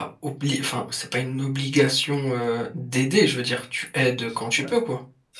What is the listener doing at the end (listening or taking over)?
taking over